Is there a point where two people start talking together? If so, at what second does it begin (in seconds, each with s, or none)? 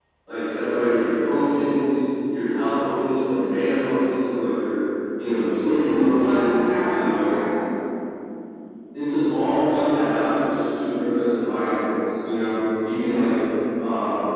5.7 s